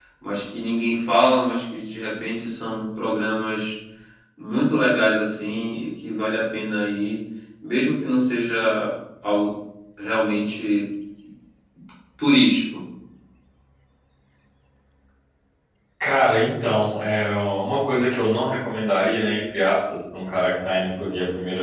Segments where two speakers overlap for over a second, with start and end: none

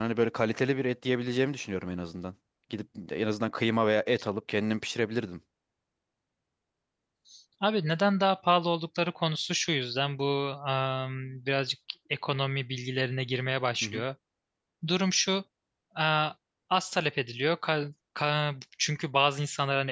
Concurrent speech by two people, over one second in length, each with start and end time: none

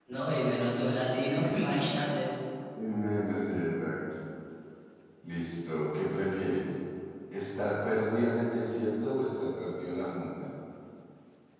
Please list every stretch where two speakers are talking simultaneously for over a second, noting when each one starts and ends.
none

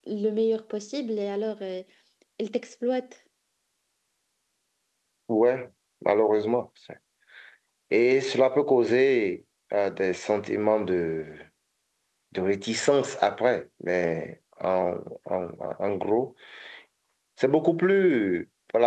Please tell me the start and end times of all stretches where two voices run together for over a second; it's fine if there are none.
none

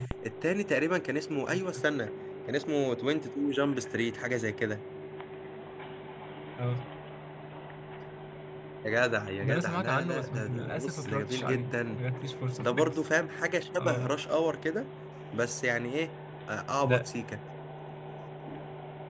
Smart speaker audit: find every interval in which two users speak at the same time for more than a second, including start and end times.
9.4-12.0

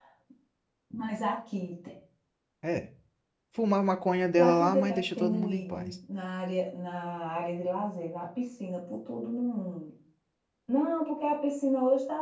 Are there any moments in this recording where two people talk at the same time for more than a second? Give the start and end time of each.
4.4-5.9

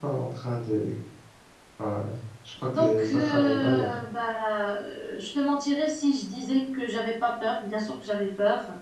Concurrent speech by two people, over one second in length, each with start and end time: 2.7-3.9

